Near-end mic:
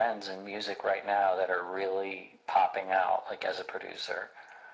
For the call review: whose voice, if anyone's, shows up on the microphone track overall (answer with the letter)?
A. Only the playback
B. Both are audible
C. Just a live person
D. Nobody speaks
A